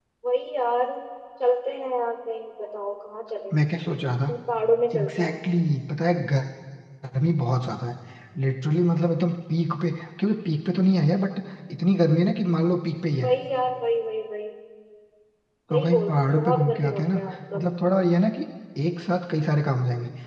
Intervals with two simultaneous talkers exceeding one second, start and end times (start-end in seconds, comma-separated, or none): 15.7-17.1